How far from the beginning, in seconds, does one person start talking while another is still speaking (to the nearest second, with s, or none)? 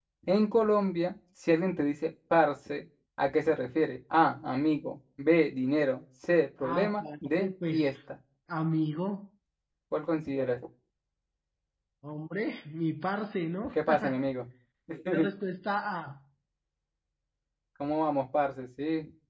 7 s